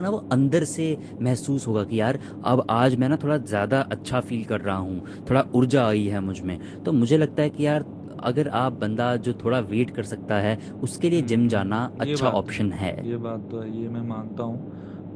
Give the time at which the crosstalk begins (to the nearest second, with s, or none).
11 s